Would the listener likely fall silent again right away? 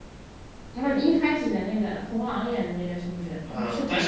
No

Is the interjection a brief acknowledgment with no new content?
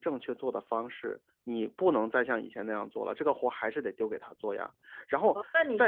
No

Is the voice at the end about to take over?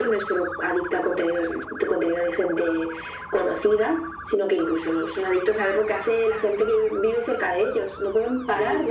No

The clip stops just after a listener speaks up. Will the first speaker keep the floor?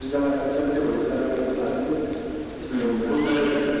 No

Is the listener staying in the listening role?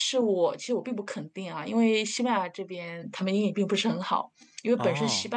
Yes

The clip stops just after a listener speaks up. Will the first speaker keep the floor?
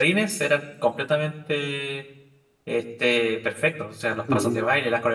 Yes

